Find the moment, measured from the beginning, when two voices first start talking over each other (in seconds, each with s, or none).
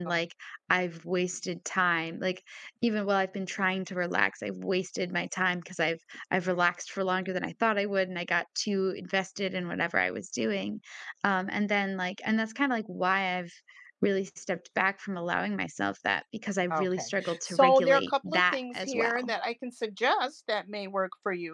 16.7 s